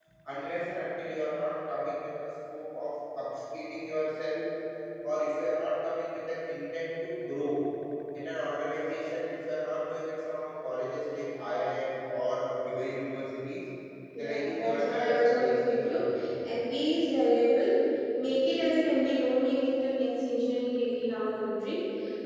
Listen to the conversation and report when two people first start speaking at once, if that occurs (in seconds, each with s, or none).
14.2 s